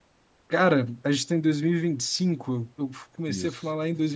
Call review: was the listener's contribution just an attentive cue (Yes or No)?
Yes